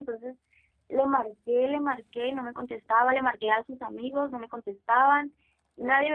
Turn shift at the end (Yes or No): No